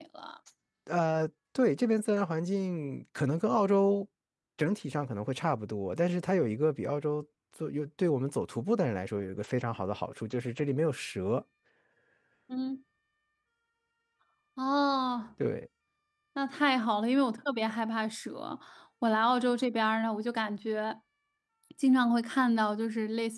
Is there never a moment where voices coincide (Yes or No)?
Yes